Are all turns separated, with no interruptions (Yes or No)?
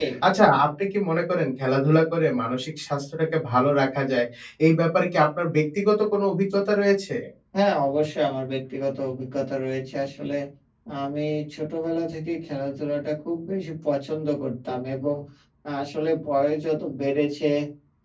Yes